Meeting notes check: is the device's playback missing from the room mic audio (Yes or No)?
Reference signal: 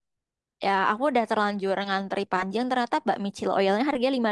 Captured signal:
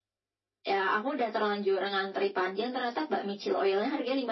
No